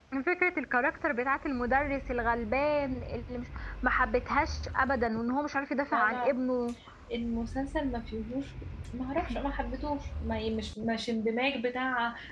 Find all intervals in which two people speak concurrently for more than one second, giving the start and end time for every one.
none

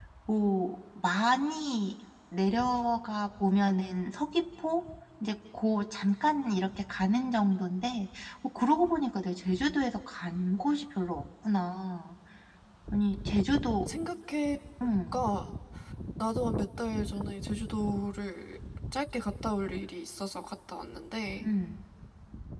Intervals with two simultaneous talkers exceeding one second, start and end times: none

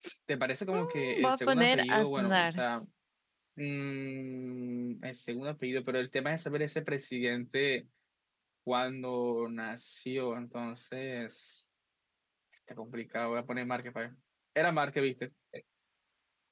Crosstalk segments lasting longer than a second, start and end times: 0.7-2.6

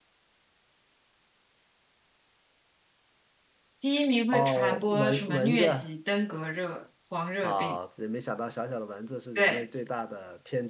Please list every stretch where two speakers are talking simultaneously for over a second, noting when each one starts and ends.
4.3-5.7

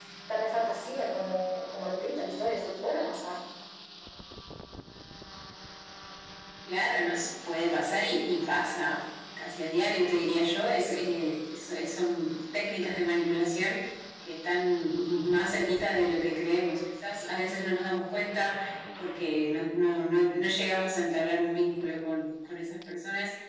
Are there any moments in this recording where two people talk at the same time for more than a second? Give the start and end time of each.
none

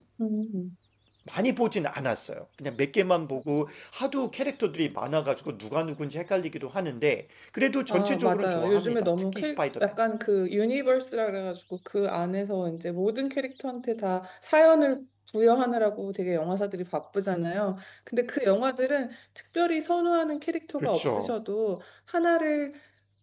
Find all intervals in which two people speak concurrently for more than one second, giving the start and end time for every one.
7.9-9.9

